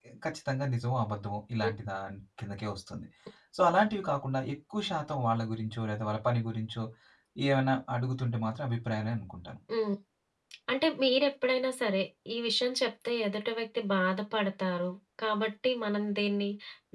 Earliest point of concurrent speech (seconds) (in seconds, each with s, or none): none